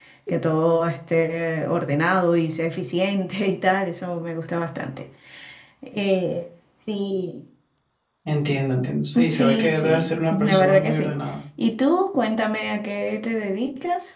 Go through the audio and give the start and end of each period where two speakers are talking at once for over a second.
9.3-11.2

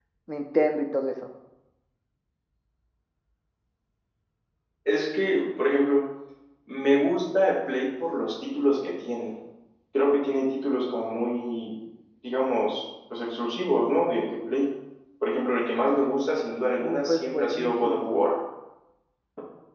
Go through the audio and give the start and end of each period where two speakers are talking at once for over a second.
16.8-18.2

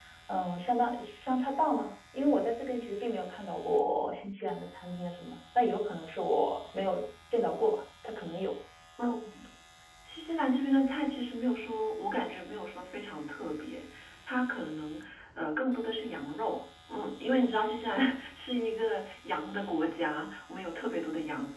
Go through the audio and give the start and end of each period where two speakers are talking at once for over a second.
none

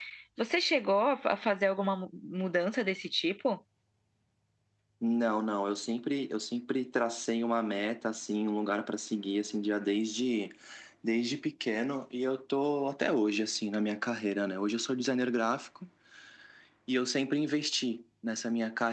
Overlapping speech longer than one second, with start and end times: none

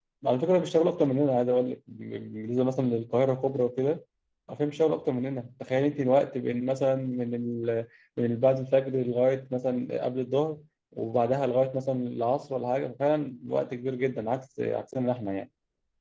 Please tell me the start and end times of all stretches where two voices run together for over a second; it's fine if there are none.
none

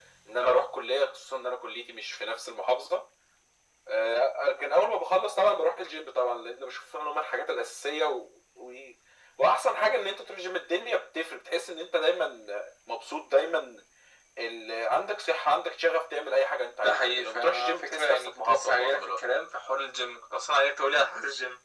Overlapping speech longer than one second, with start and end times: 16.8-19.2

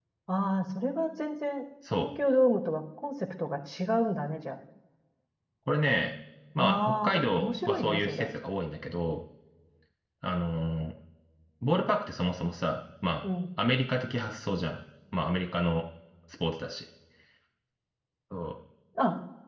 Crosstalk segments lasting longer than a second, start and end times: 6.6-8.3

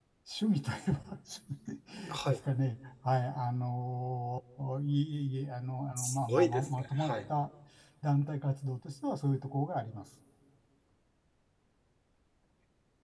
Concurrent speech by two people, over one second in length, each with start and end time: 6.0-7.3

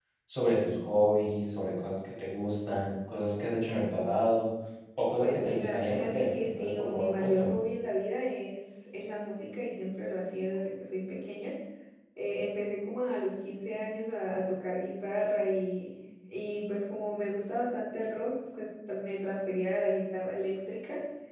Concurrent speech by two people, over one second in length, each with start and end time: 5.2-7.6

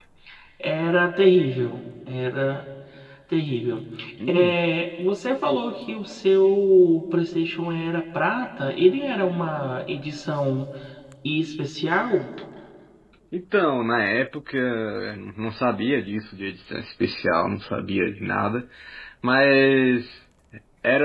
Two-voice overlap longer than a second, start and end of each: none

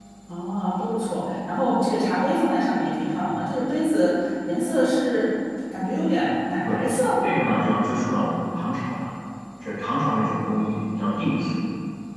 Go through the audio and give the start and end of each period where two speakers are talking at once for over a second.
none

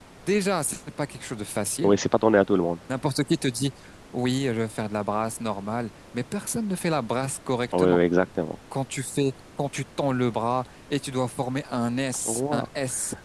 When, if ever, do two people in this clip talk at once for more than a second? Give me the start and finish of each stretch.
none

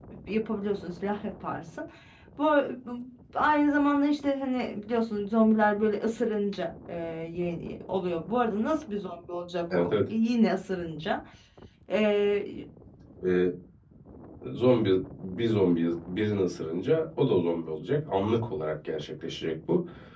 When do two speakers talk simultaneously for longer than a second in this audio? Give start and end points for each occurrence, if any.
none

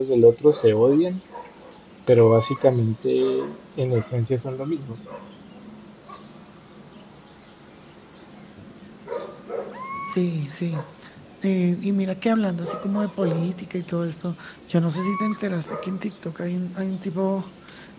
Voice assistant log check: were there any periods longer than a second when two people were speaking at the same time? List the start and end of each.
none

